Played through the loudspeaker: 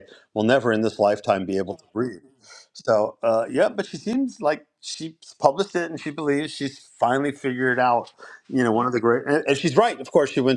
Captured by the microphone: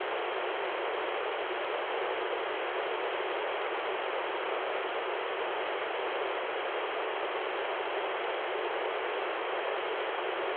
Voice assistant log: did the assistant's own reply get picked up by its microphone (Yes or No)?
No